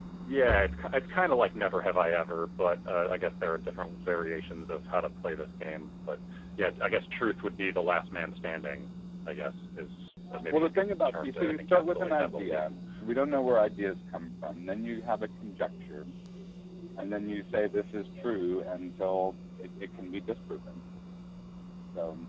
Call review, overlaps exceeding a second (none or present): present